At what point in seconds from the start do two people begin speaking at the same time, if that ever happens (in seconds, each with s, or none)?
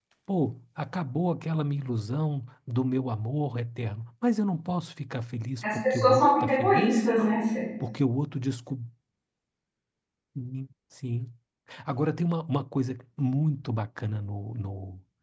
5.6 s